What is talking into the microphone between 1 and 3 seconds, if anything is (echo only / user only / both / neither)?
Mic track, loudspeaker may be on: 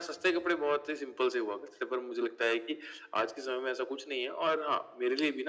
echo only